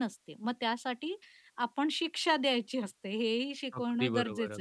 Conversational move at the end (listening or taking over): taking over